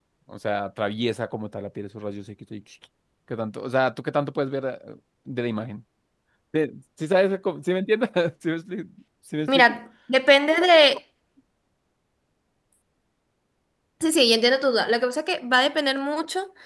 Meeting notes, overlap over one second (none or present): none